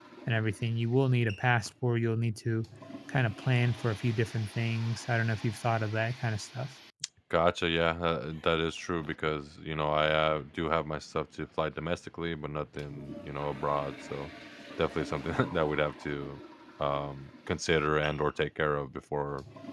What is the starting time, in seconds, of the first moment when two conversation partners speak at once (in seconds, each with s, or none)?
none